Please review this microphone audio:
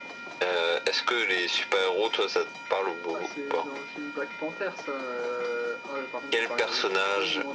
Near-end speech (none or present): none